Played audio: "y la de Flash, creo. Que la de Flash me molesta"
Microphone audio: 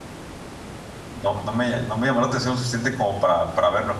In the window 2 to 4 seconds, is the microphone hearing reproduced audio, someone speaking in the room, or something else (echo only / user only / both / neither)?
user only